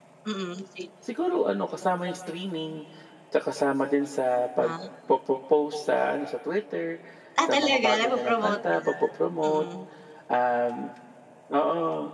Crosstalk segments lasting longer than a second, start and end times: 7.5-8.8

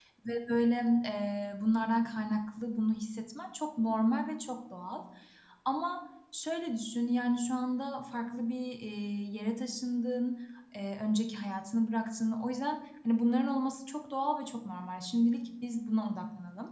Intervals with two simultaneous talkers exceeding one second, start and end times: none

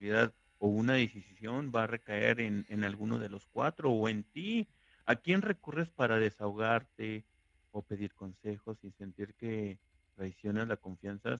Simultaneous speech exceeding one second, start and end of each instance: none

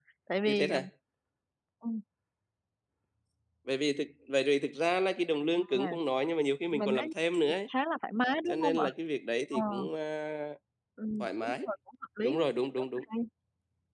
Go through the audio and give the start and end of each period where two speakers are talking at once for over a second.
none

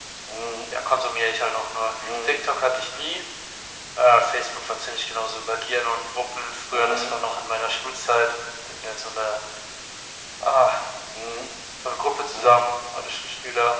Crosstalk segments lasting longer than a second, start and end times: none

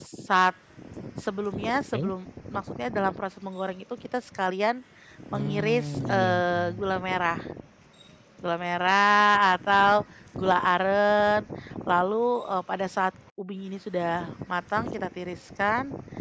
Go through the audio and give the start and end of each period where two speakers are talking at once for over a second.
5.3-6.9

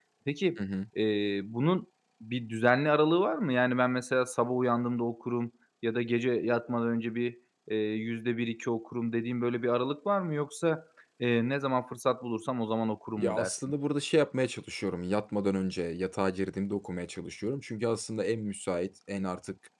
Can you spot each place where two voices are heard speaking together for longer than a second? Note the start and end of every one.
none

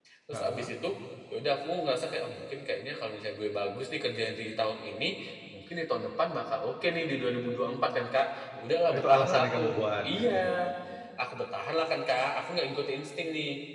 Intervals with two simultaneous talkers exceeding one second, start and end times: 9.0-10.5

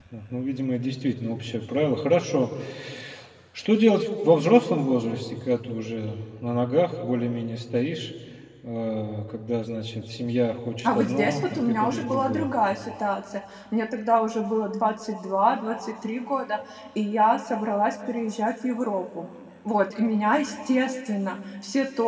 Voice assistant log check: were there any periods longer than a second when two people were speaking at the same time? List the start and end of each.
10.8-12.5

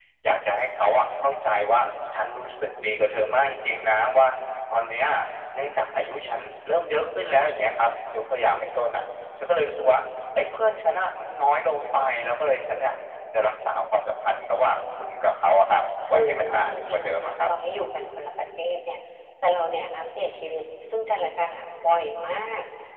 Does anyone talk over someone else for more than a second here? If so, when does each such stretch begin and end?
16.1-17.5

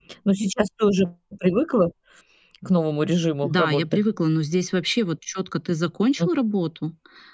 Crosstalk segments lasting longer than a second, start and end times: none

